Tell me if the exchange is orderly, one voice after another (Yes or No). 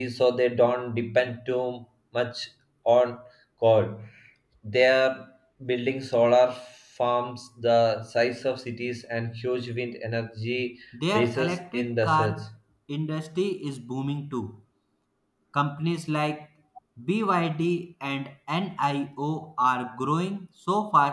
No